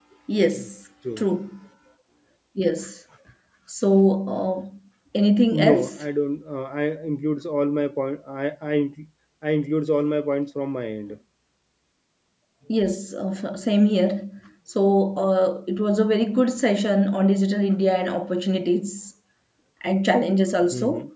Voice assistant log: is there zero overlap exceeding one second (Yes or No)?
Yes